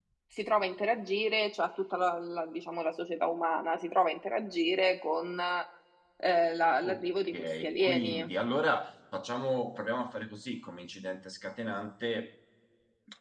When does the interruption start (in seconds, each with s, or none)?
6.8 s